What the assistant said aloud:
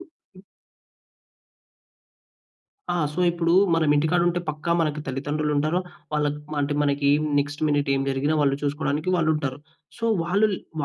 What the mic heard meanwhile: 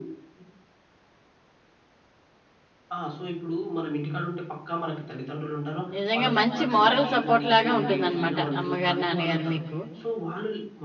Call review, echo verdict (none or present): present